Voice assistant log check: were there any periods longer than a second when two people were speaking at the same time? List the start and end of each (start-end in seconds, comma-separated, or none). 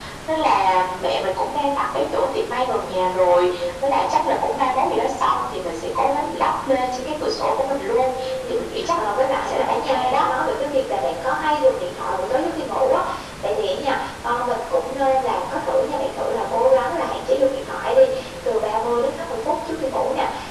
8.5-10.2